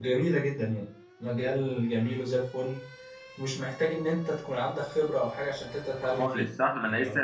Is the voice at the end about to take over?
Yes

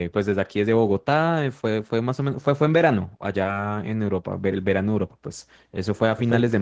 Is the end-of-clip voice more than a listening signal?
No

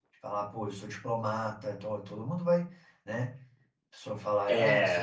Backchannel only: Yes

